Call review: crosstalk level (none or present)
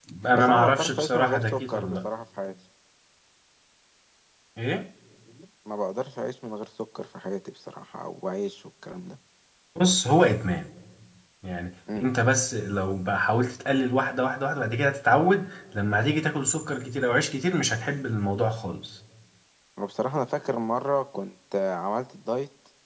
present